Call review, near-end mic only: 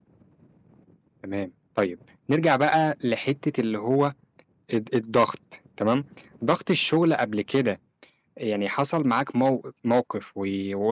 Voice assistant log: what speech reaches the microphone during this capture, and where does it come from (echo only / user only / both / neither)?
user only